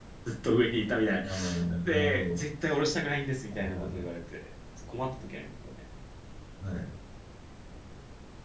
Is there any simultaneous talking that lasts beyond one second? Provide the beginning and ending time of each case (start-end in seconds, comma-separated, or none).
none